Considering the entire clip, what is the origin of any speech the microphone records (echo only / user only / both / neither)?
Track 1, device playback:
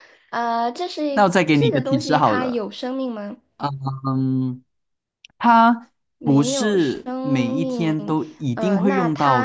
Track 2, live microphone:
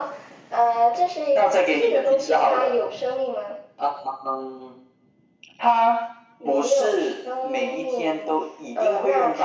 echo only